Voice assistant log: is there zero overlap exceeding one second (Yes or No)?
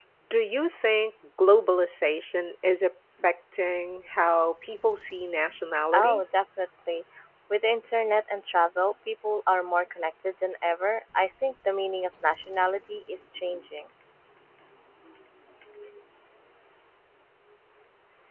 Yes